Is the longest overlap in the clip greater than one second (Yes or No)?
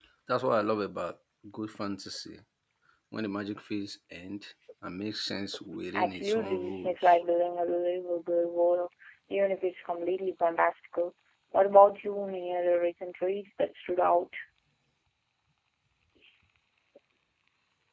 Yes